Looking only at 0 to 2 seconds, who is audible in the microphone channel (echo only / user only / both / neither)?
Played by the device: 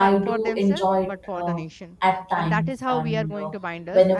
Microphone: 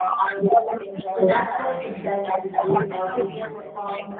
both